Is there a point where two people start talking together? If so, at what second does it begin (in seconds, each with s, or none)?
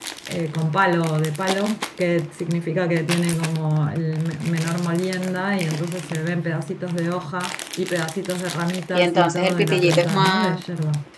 8.9 s